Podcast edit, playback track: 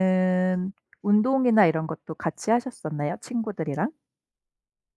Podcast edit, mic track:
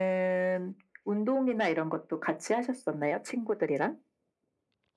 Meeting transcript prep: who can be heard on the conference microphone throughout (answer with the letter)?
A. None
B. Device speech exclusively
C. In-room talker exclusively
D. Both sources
B